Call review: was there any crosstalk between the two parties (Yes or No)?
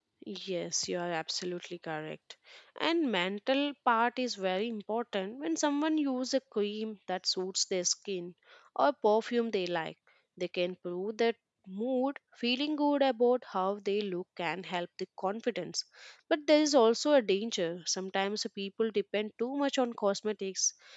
No